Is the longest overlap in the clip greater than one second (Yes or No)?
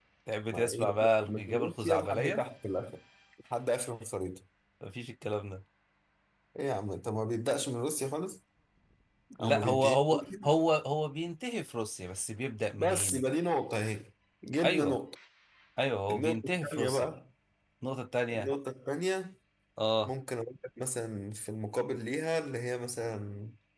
Yes